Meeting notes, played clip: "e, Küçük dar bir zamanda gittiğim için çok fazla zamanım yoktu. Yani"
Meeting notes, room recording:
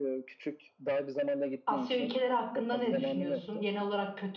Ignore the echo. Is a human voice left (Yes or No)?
Yes